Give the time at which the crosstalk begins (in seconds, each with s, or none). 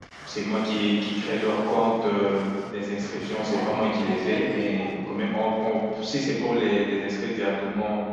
3.4 s